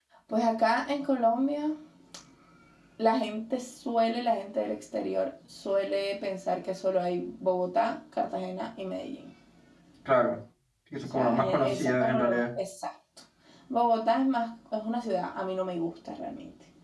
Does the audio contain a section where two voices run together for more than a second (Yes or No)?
Yes